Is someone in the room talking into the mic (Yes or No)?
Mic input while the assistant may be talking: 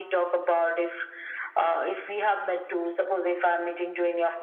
No